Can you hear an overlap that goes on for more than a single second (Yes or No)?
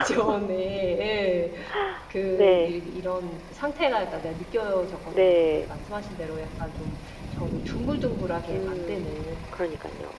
No